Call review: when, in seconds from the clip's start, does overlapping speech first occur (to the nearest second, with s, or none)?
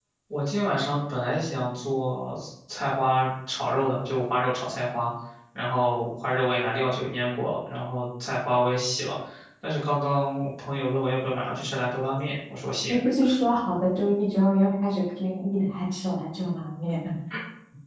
none